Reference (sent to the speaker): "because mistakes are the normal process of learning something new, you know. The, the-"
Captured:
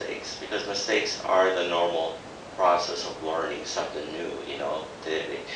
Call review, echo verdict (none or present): present